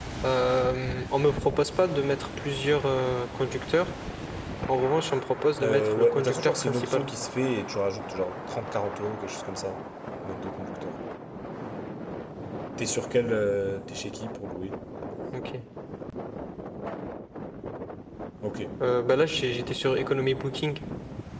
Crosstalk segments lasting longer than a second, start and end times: 5.6-7.1

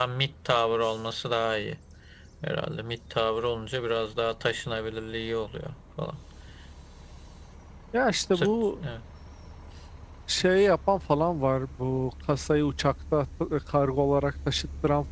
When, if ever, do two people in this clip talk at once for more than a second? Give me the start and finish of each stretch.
none

